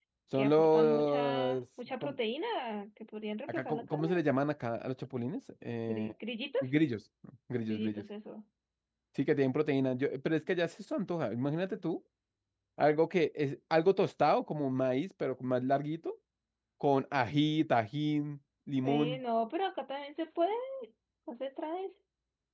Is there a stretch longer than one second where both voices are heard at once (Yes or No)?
Yes